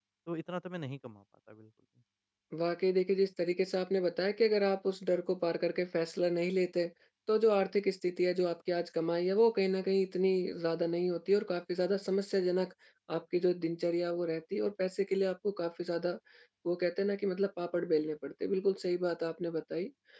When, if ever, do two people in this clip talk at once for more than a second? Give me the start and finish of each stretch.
none

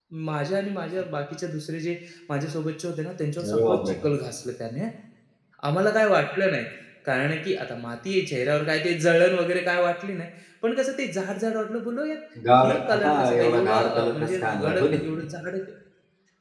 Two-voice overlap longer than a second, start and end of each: 12.6-15.0

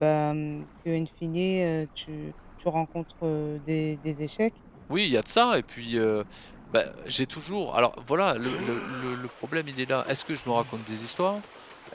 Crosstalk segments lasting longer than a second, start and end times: none

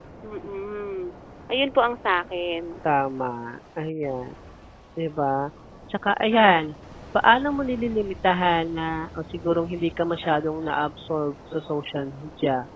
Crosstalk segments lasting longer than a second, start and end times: none

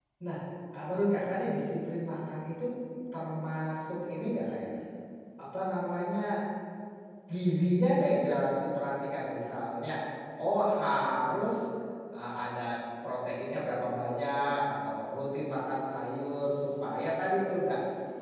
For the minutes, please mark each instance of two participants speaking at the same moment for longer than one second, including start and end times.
none

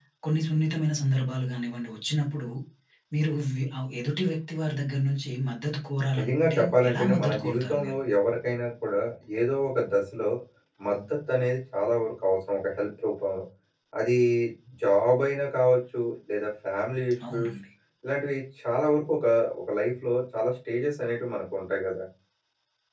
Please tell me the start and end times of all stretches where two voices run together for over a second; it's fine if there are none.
6.2-7.9

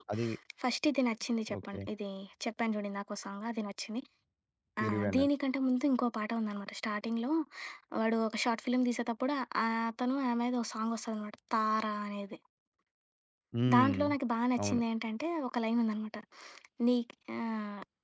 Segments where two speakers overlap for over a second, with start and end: none

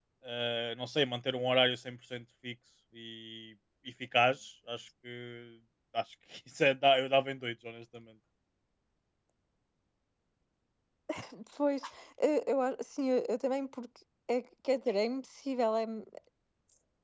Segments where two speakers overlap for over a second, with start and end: none

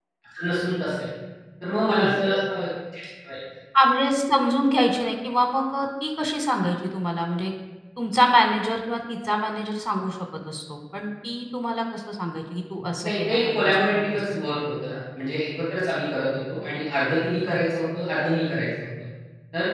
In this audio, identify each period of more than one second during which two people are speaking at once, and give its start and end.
13.0-14.3

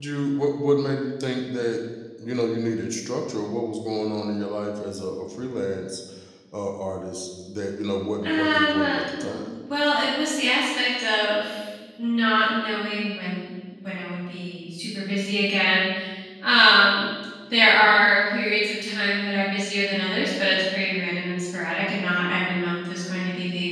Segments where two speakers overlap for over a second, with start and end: 8.2-9.5

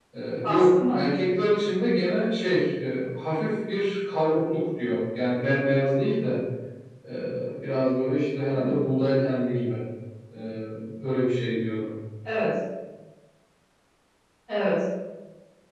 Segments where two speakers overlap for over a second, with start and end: none

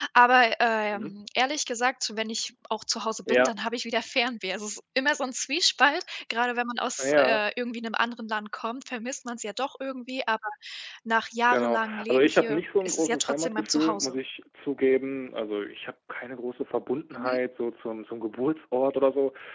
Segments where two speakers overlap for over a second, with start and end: 11.4-14.1

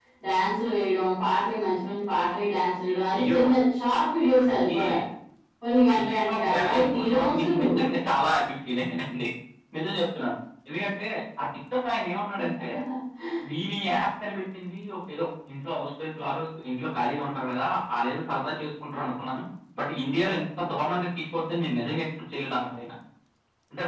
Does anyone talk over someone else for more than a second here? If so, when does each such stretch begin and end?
6.0-7.7

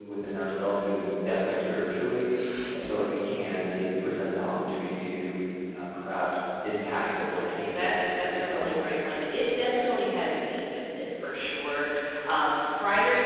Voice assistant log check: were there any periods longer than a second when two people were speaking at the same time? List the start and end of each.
7.0-8.8

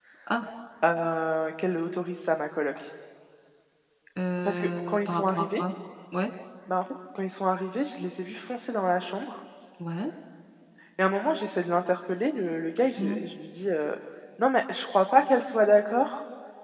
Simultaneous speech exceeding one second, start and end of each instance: 4.4-5.6

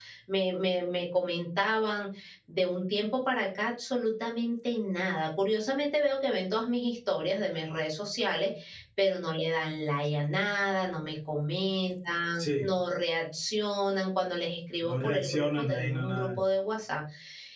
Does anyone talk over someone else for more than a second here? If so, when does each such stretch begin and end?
14.8-16.3

